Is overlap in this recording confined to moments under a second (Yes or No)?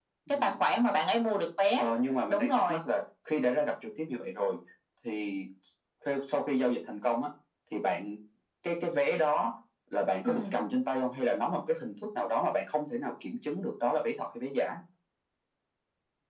Yes